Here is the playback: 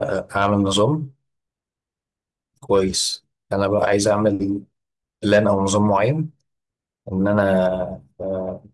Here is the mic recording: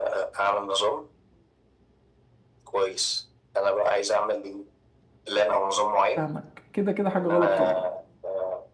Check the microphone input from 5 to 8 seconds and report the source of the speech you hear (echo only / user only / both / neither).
both